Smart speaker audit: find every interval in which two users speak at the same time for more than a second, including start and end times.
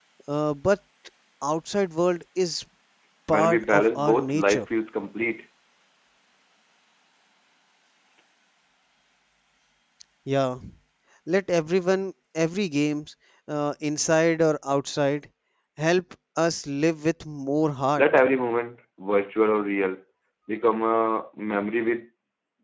3.3-4.6

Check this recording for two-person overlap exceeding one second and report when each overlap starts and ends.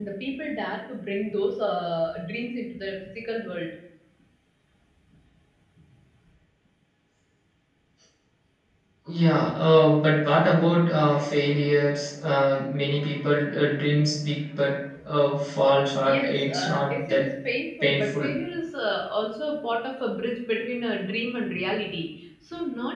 16.0-17.3

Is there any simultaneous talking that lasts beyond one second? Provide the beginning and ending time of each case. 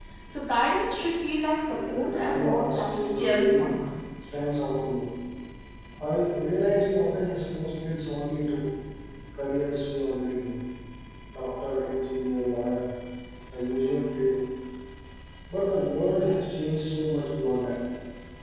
1.7-3.7

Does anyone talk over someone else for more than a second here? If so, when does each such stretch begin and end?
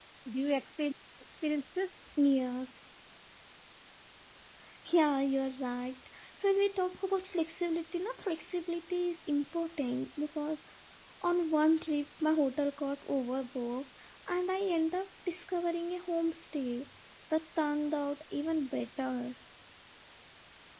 none

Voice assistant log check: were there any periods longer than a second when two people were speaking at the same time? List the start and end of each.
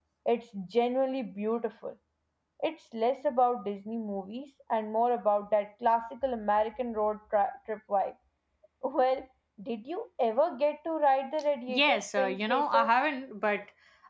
11.7-12.9

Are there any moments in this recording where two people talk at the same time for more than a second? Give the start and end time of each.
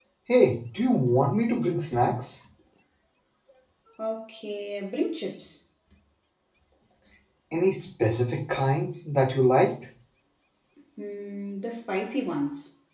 none

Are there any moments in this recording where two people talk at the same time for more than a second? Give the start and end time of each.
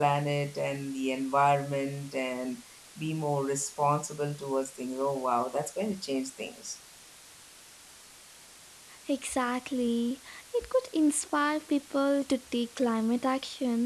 none

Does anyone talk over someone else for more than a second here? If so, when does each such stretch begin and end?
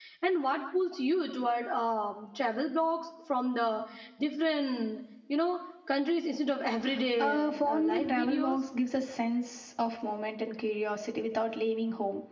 7.2-8.6

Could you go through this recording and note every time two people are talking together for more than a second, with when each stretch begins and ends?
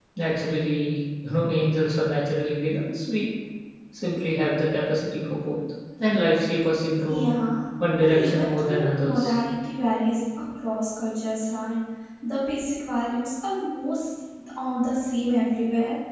8.0-9.4

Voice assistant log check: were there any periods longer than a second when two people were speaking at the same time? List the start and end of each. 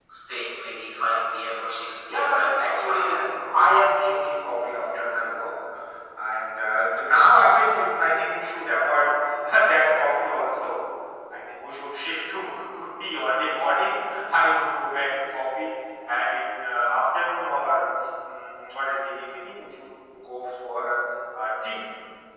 2.1-3.8

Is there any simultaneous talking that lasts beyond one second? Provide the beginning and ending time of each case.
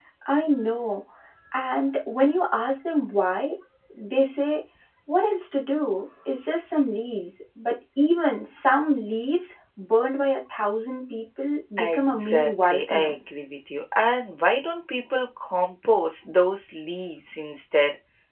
11.8-13.2

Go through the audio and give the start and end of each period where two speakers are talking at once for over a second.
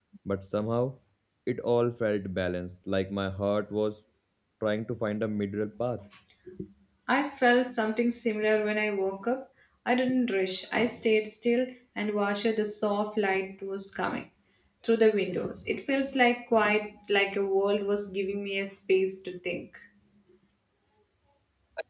none

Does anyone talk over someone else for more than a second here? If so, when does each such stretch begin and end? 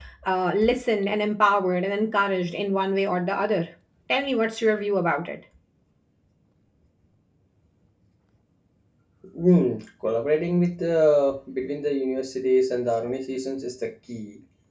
none

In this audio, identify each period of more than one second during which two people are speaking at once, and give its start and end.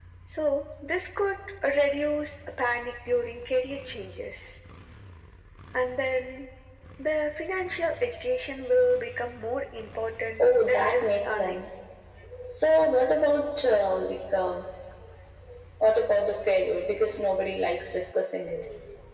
10.4-11.7

